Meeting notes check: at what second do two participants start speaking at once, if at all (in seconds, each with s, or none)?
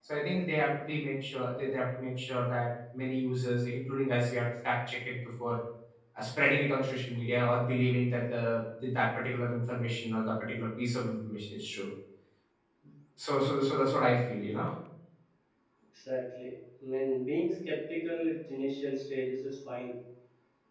none